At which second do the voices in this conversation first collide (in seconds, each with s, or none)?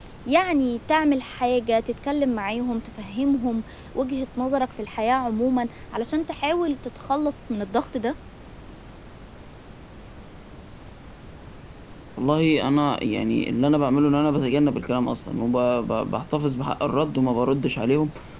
none